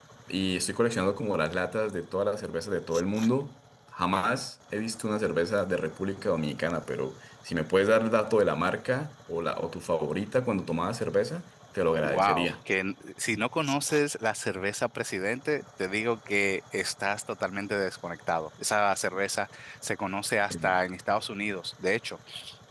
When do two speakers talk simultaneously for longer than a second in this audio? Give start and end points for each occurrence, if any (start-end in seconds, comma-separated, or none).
none